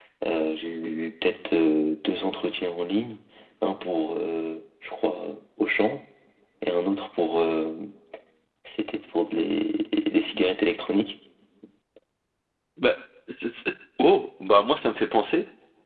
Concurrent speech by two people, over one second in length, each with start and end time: none

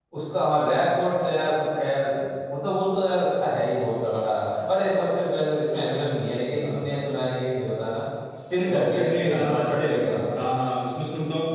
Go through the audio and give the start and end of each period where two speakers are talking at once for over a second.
8.7-10.1

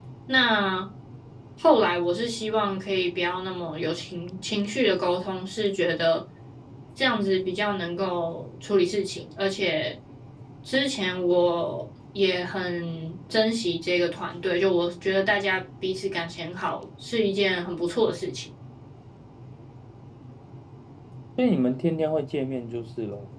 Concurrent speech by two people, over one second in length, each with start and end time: none

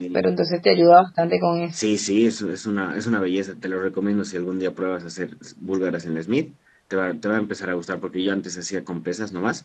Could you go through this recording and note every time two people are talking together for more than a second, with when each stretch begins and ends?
none

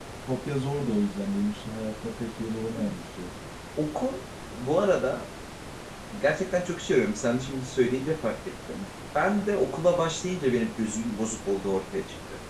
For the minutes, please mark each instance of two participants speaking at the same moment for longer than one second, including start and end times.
none

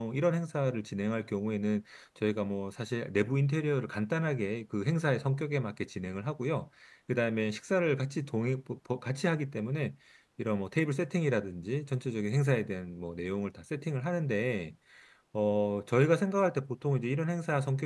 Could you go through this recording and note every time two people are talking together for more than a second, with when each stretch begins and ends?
none

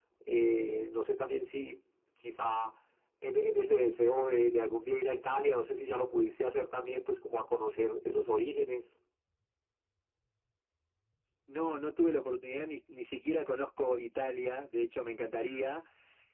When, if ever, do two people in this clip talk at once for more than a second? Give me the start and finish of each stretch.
none

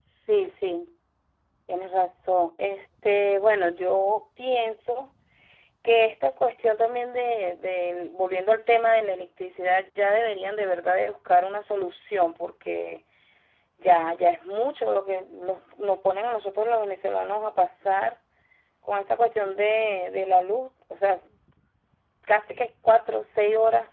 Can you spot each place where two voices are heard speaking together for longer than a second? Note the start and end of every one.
none

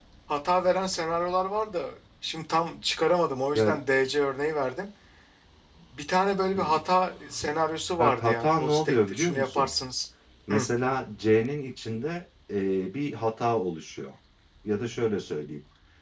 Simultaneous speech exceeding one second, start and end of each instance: 8.0-9.7

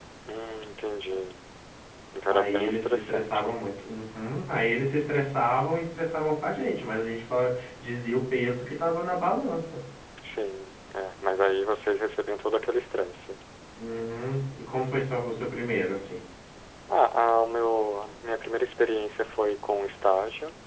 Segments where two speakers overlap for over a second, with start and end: 2.3-3.6

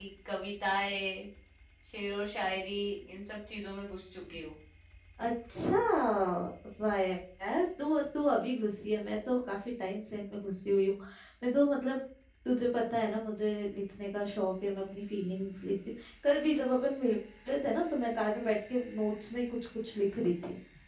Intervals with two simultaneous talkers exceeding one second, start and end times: none

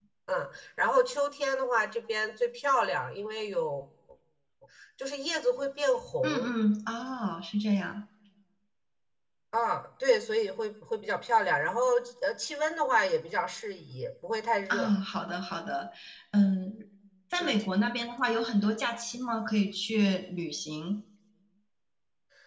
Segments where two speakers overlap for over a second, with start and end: none

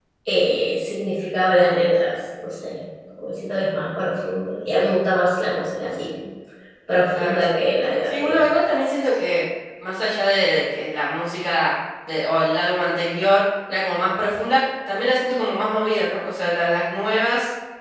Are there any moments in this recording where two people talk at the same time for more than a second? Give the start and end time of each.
none

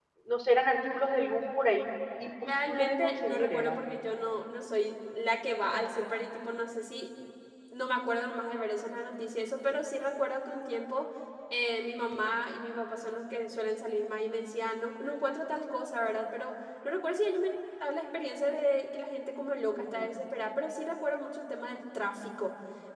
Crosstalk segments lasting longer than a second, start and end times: 2.5-3.8

